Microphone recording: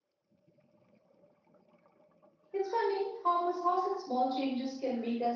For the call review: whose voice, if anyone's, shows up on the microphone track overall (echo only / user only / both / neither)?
user only